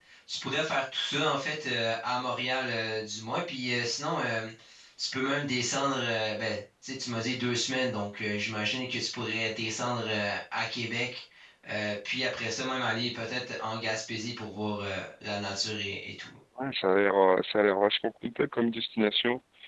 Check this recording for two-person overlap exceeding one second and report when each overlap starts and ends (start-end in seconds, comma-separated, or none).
none